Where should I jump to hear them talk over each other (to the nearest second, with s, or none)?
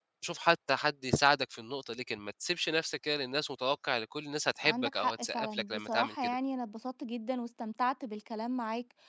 5 s